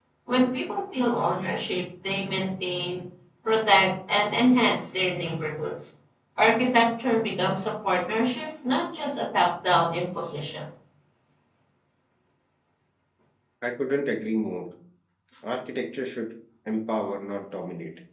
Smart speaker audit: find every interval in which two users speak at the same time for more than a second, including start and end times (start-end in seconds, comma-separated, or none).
none